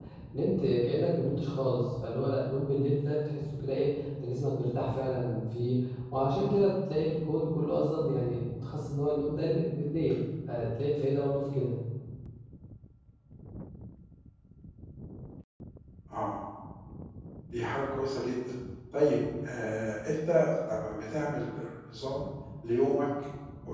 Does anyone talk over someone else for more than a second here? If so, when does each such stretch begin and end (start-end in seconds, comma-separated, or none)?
none